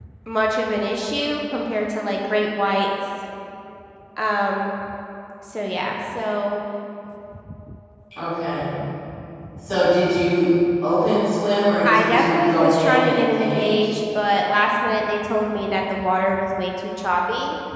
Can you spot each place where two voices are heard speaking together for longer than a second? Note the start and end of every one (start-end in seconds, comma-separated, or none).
11.8-13.7